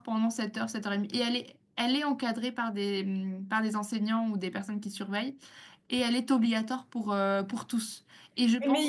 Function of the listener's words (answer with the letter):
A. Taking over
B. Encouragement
A